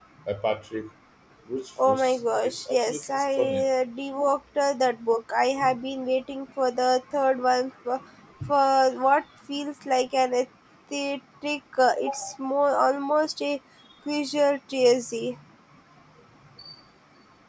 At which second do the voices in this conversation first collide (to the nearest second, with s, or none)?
2 s